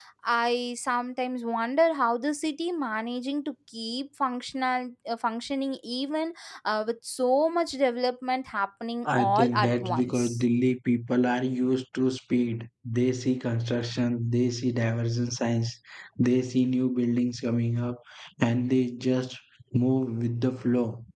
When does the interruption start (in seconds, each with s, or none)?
9.1 s